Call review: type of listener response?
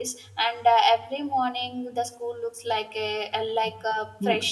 taking over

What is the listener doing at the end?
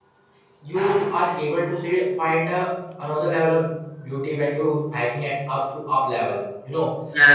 listening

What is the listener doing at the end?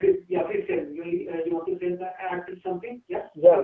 taking over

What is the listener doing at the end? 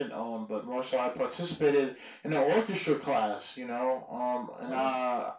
listening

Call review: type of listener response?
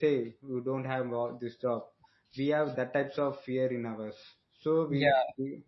listening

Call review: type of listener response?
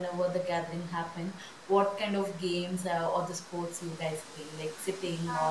taking over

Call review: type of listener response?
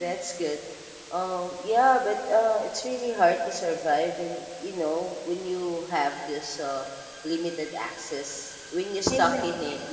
listening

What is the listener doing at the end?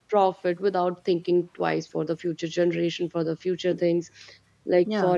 listening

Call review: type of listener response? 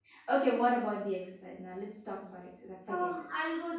taking over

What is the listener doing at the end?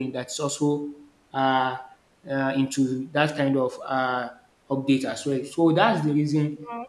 listening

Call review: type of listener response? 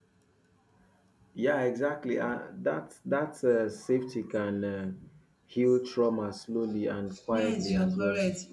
taking over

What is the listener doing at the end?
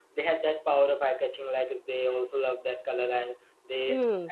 listening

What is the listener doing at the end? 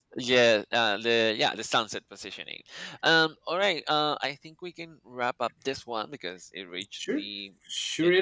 taking over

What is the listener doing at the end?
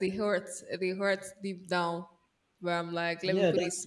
taking over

